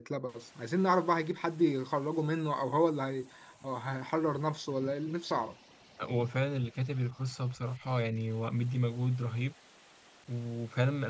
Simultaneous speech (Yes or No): No